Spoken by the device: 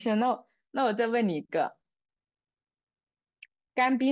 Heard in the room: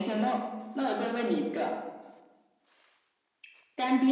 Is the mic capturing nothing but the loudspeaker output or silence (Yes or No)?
Yes